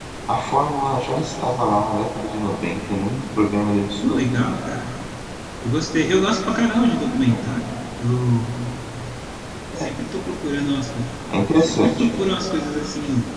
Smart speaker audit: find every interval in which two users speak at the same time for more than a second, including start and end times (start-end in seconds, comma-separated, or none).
none